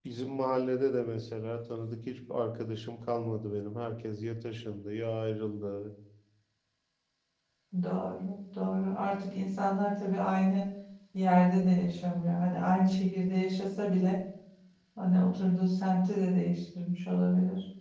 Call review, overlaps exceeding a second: none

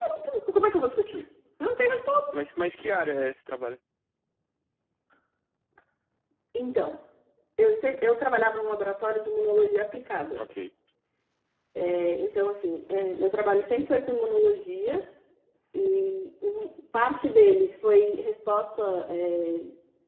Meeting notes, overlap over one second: none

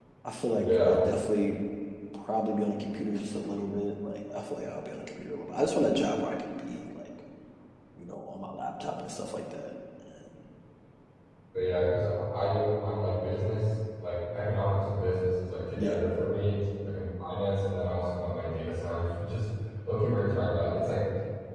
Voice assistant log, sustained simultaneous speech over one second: none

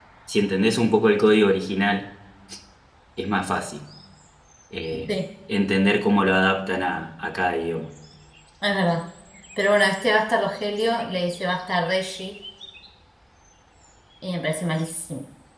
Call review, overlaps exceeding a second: none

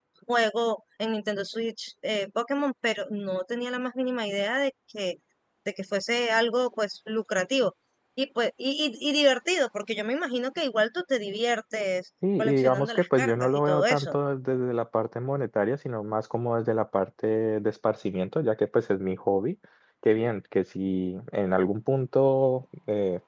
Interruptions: present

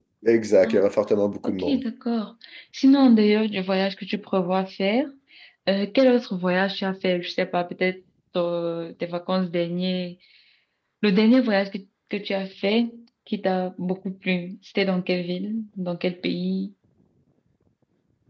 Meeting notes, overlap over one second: none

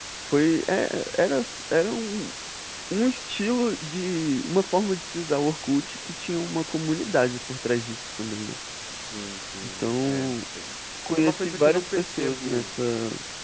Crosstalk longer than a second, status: present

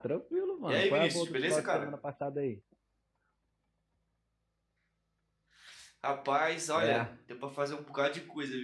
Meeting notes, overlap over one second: present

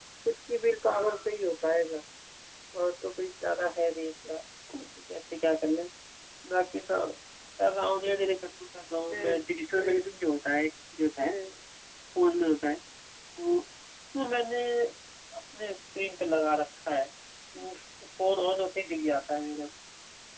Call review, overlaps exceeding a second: none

